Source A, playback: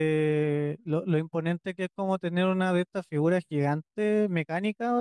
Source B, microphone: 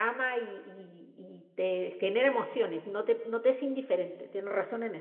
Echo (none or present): none